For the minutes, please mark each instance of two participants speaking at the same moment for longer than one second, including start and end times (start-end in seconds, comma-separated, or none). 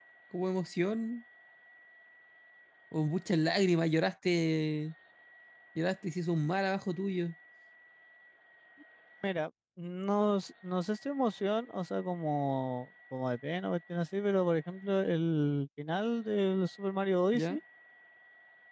none